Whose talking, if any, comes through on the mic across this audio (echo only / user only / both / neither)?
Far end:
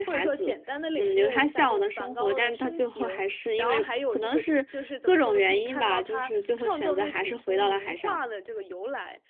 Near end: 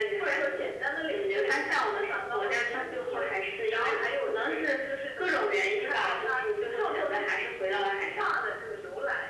echo only